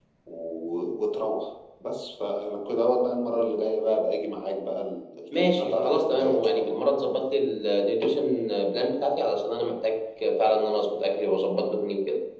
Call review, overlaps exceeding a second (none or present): present